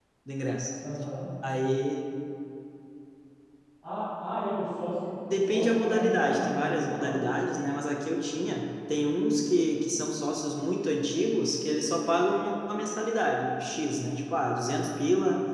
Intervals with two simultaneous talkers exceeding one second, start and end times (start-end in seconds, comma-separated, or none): 5.3-7.2